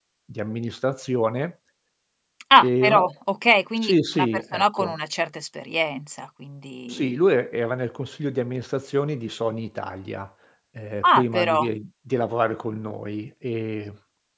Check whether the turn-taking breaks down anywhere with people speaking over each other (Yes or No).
Yes